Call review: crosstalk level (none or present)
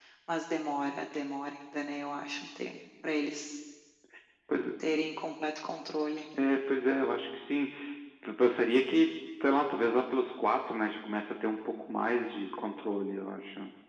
none